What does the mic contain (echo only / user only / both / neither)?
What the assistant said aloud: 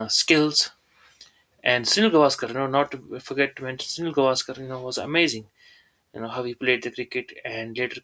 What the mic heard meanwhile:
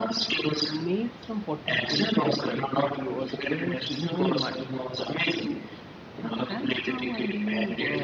both